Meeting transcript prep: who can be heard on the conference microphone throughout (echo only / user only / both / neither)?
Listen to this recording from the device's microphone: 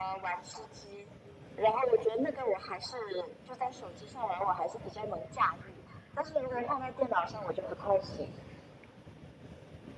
echo only